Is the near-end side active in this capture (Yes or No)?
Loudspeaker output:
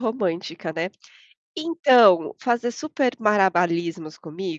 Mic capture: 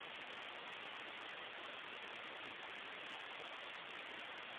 No